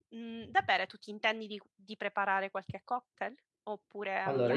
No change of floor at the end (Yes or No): No